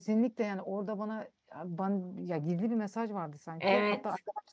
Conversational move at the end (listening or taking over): listening